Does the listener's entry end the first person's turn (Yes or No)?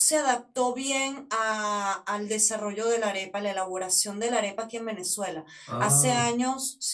No